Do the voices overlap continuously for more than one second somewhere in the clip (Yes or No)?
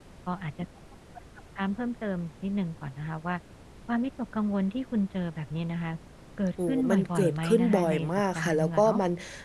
Yes